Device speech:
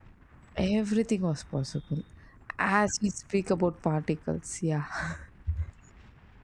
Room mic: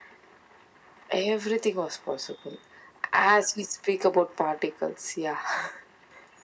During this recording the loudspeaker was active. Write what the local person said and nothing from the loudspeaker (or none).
none